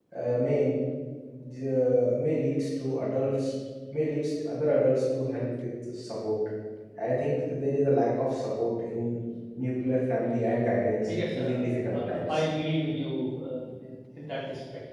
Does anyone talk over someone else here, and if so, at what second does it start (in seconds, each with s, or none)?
11.0 s